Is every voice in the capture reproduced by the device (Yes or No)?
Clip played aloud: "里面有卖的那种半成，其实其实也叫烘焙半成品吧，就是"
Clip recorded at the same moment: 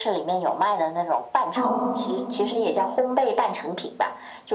No